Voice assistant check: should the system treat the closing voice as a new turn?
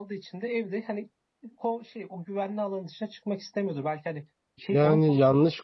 Yes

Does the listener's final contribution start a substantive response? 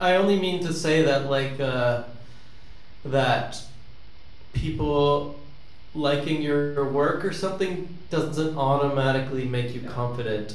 No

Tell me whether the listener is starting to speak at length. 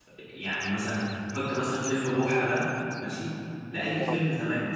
No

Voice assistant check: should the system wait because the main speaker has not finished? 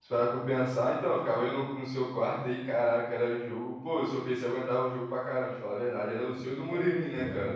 No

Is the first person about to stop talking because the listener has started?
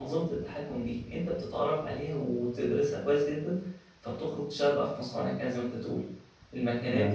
No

